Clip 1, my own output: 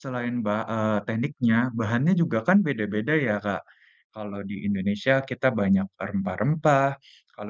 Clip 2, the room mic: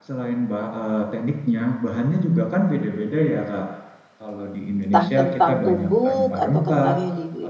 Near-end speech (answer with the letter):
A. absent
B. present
B